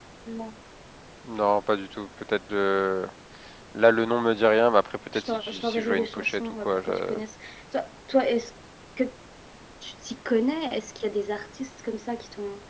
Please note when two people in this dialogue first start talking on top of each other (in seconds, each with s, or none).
5.1 s